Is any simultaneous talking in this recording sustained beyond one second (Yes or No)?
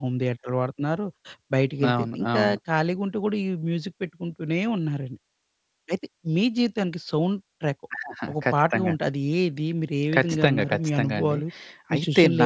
Yes